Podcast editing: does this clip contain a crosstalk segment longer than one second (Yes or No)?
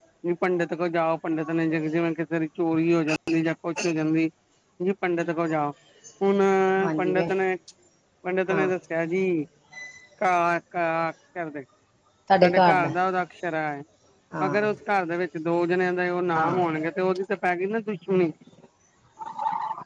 No